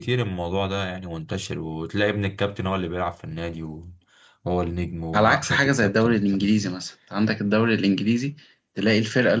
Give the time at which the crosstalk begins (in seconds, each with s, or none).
5.1 s